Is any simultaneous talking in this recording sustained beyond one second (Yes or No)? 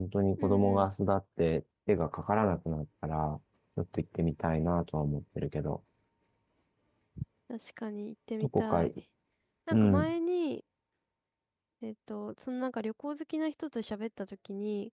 No